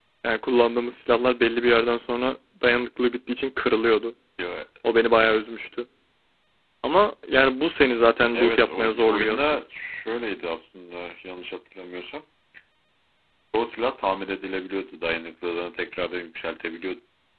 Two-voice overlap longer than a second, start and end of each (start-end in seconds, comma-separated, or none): 8.3-9.6